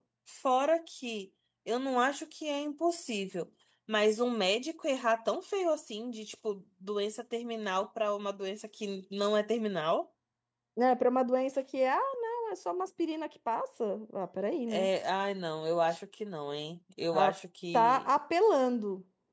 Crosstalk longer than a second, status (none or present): none